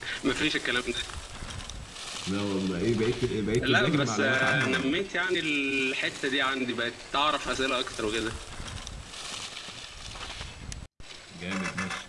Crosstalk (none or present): present